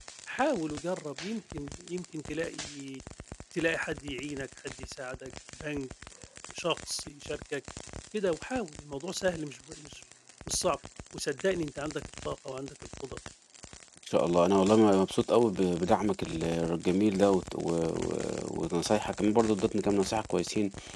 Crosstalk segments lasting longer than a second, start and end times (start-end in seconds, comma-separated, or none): none